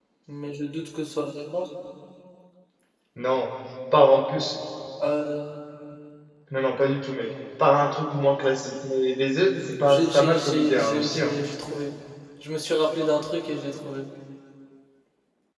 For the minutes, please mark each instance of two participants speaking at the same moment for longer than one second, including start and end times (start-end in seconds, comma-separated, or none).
9.8-11.4